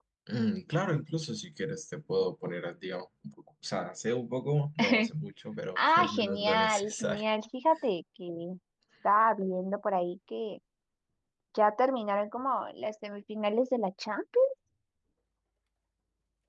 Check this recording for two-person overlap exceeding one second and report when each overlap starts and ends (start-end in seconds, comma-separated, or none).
5.8-7.2